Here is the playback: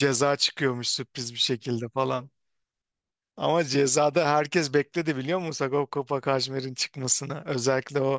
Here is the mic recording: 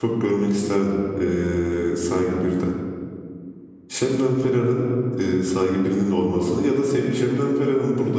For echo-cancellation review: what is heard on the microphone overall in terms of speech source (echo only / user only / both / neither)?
user only